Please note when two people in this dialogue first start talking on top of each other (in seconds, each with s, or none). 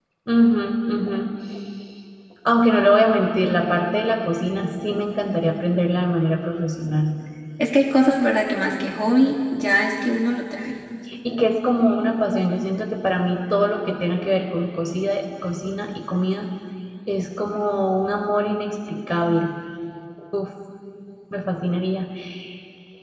none